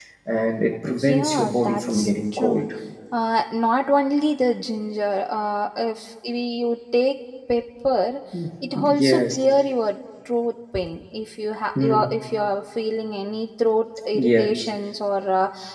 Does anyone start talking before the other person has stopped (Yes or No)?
Yes